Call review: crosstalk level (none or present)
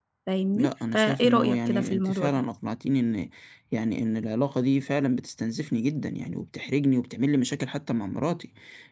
present